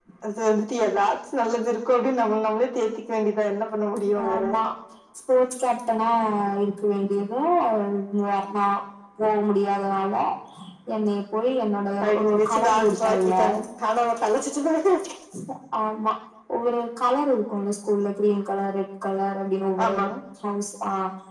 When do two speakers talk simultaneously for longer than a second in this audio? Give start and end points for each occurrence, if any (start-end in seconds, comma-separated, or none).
12.0-13.3